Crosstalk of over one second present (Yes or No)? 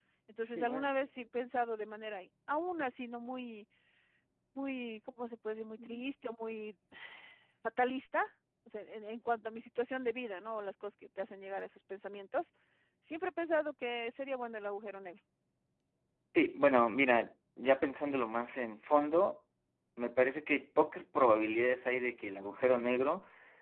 No